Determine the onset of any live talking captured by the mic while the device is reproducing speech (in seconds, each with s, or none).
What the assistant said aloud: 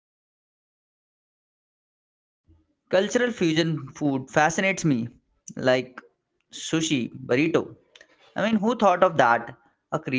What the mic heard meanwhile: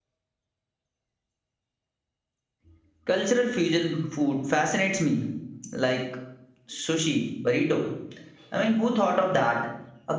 none